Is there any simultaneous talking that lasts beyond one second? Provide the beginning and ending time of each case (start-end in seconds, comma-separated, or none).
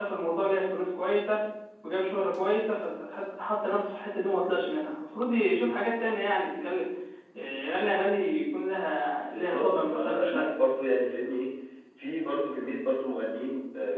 9.2-10.5